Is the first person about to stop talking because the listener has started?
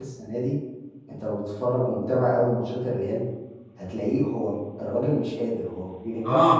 Yes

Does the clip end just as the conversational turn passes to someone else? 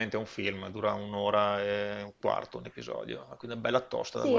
Yes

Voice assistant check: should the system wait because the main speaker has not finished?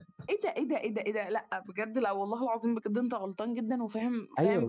No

